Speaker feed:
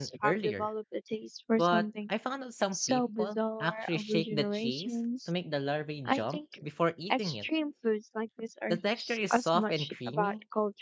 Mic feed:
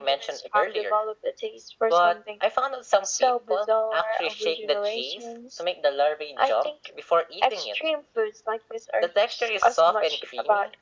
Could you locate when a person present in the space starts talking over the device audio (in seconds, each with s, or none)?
none